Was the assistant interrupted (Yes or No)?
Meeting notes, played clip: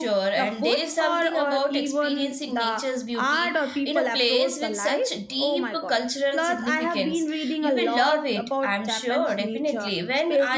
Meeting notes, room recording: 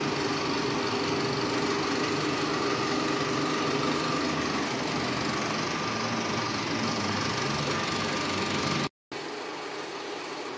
No